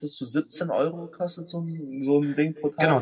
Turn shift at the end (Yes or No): Yes